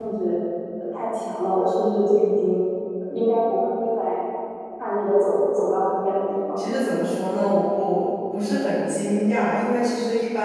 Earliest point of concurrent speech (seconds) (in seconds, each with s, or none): none